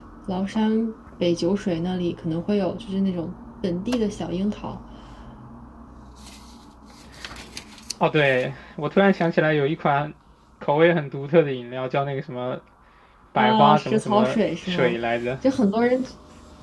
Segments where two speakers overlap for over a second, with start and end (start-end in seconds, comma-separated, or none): 13.4-15.0